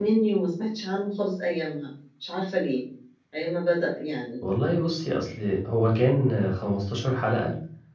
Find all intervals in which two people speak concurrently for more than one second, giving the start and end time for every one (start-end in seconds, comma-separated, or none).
none